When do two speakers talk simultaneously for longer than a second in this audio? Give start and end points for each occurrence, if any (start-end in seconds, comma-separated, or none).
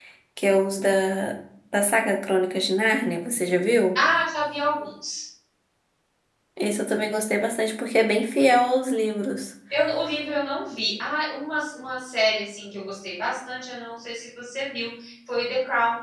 none